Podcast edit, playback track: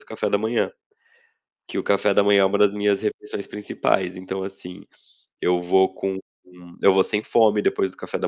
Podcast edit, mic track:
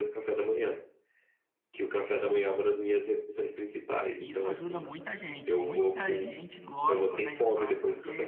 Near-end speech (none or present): present